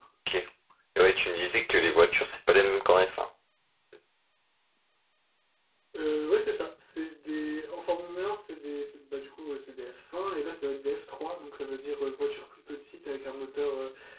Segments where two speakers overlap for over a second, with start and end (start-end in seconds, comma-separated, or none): none